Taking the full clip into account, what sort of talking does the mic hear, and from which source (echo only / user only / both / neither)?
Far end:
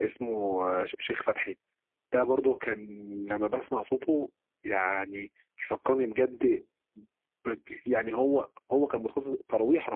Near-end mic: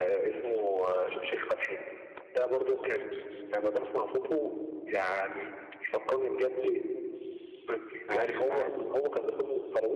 both